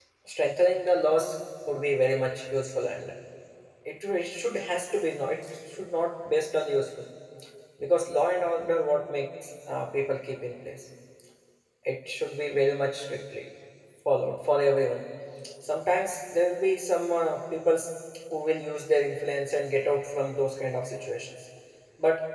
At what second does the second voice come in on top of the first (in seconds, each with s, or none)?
none